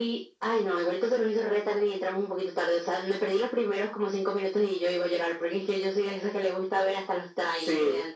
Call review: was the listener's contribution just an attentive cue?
No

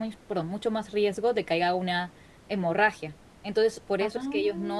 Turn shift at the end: No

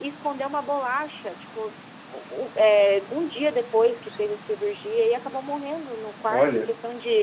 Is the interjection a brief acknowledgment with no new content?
Yes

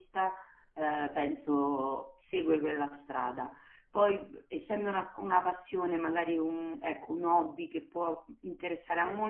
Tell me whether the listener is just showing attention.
Yes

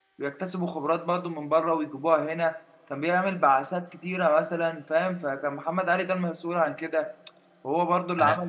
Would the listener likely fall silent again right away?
Yes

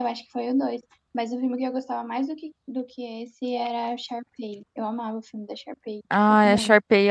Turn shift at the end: Yes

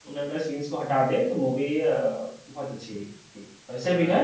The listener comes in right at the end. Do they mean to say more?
No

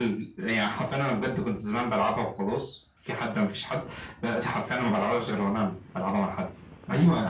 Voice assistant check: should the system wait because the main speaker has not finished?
No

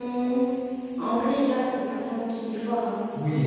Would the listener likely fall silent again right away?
No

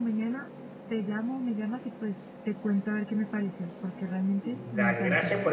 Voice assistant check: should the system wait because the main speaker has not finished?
No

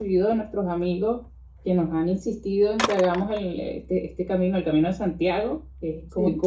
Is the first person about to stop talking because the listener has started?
No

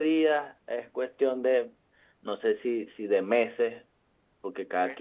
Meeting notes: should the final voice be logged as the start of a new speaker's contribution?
No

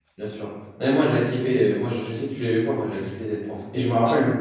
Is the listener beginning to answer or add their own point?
No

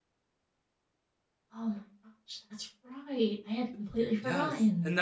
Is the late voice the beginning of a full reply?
Yes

